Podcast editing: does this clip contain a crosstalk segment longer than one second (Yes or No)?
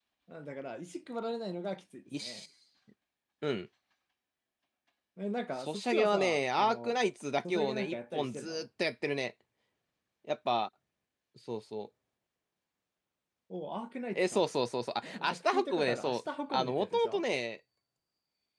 Yes